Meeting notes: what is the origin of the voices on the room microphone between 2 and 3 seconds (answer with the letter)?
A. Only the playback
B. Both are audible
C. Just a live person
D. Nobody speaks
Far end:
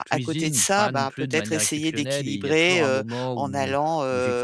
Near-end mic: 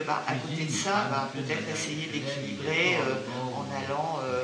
A